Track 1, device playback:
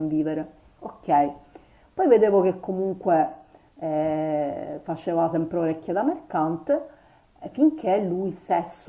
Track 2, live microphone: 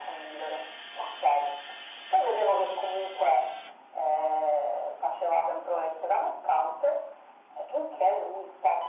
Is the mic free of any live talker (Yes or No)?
Yes